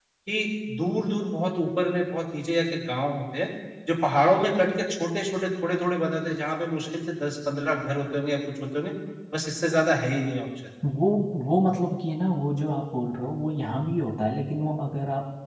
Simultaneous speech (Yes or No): No